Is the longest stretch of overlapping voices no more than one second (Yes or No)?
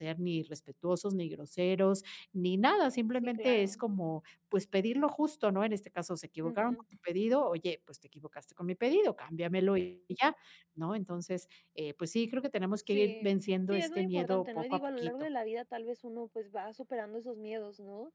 No